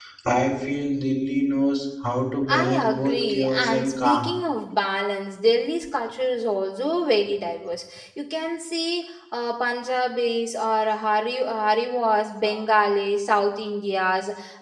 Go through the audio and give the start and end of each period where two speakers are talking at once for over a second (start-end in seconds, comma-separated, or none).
2.5-4.3